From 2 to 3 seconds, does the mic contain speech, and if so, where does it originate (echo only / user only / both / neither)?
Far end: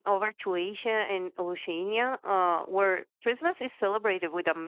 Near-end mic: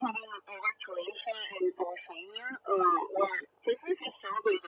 echo only